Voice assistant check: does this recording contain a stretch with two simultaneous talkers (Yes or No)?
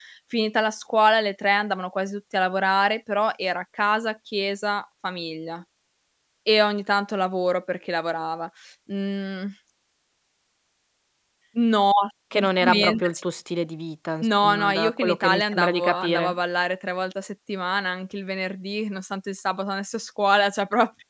Yes